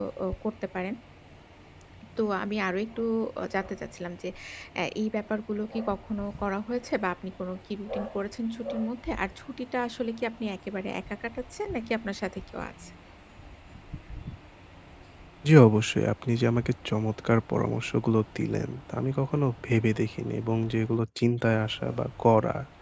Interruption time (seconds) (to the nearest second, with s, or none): none